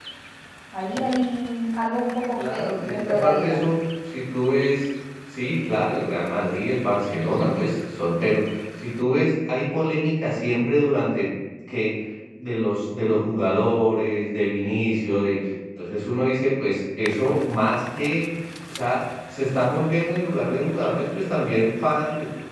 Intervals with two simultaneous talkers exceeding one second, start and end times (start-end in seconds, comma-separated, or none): 2.4-3.6